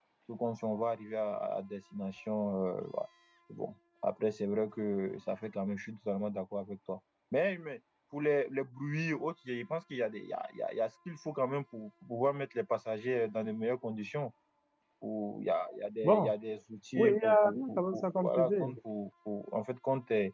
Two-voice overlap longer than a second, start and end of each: 16.9-18.5

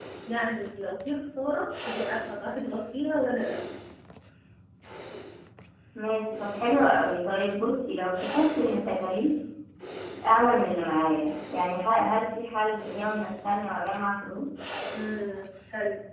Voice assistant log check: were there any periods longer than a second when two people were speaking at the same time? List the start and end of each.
none

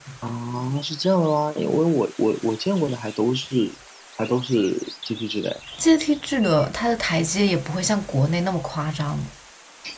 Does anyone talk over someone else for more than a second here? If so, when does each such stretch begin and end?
none

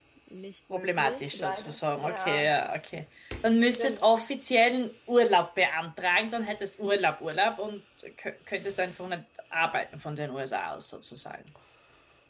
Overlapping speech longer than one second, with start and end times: 0.7-2.5

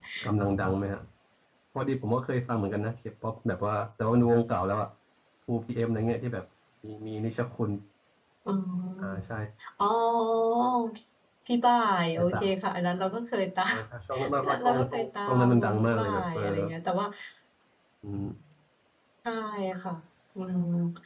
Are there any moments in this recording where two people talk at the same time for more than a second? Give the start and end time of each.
14.4-16.6

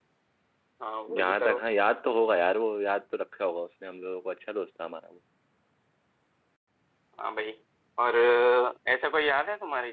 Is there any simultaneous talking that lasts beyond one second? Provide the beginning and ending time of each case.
none

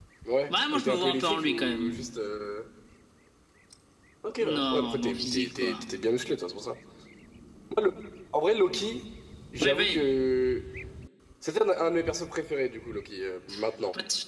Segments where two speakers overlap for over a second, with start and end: 0.5-2.0, 4.4-5.9

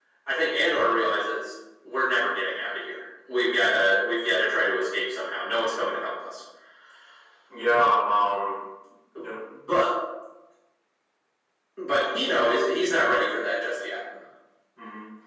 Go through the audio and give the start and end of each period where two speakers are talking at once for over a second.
none

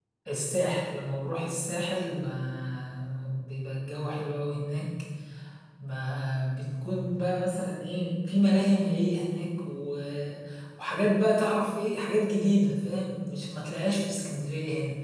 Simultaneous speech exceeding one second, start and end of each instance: none

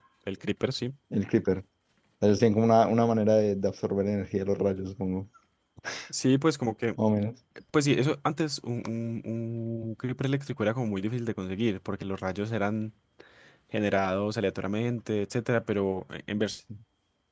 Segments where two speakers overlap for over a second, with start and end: none

